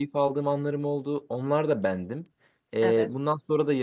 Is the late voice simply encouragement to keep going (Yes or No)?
Yes